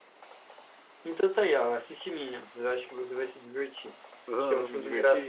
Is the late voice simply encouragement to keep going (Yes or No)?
No